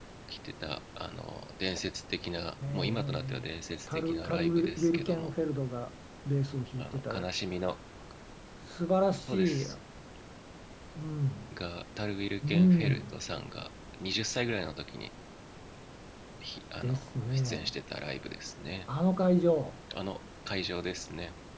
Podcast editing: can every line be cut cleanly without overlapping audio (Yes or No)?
No